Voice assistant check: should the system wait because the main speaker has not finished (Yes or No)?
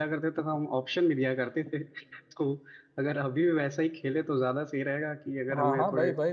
No